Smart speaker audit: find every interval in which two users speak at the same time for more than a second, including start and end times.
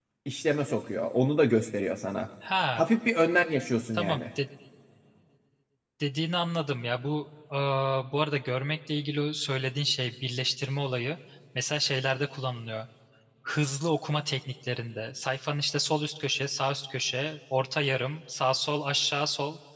none

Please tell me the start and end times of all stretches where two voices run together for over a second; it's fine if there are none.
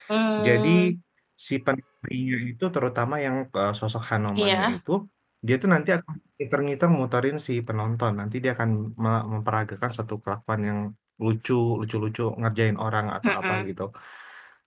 none

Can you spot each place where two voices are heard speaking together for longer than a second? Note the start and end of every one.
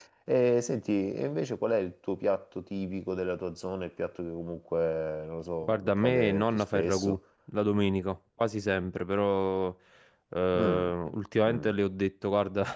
5.6-7.2

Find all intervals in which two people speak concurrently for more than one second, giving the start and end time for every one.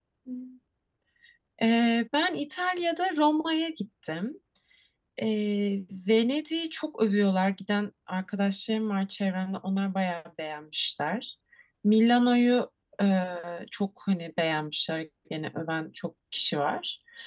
none

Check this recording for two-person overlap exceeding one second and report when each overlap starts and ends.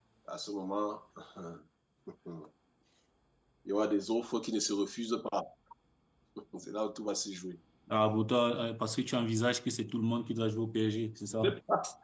none

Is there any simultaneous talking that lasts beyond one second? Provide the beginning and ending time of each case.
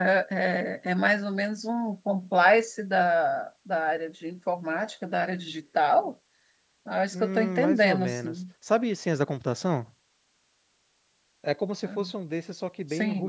7.1-8.3

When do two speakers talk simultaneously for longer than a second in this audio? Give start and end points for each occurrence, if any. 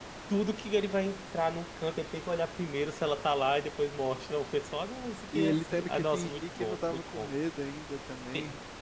5.3-7.3

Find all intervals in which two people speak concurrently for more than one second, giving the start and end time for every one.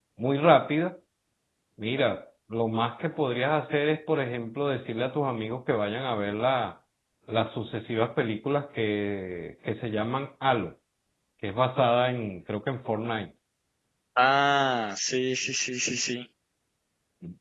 none

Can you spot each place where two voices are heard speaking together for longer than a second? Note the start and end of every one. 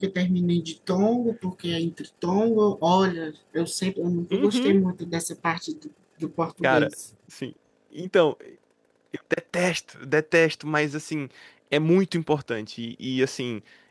none

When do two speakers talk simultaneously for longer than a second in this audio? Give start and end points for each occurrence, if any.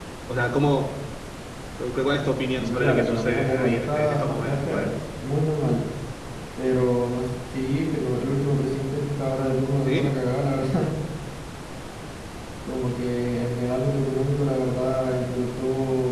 2.6-4.9

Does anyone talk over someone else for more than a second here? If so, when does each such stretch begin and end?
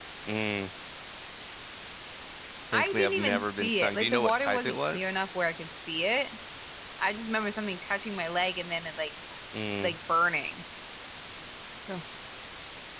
2.7-5.0

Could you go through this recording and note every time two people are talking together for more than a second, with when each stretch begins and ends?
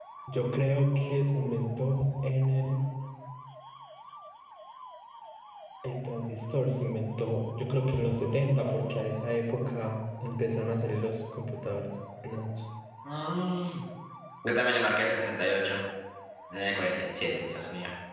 none

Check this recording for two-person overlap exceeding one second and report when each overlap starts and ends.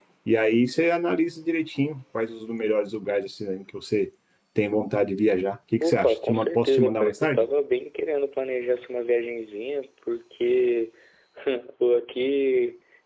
5.8-7.5

